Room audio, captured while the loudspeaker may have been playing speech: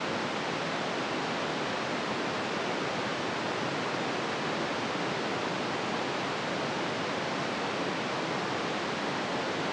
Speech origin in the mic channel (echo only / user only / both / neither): neither